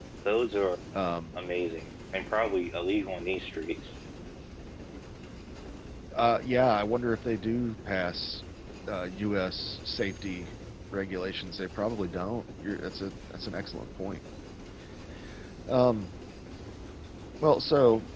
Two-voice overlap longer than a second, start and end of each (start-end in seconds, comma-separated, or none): none